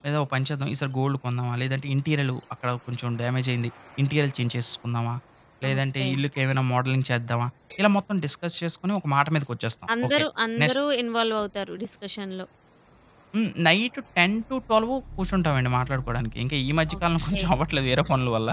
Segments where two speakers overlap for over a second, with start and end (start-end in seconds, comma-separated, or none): none